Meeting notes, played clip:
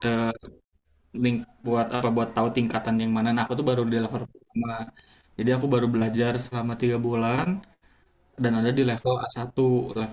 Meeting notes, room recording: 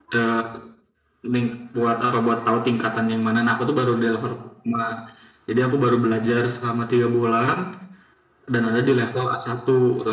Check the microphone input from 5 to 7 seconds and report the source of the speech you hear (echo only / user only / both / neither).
echo only